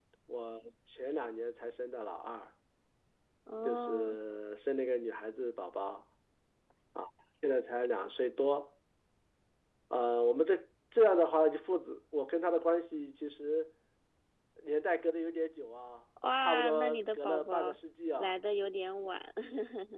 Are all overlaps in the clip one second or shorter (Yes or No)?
No